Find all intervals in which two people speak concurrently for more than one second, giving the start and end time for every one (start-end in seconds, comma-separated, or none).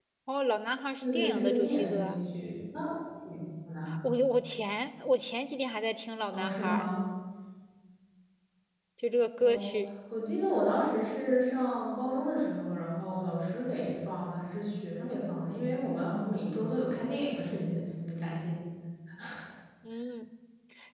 1.0-2.2